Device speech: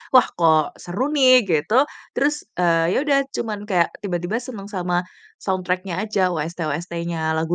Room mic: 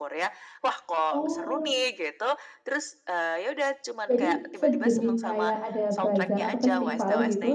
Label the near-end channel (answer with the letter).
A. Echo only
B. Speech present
B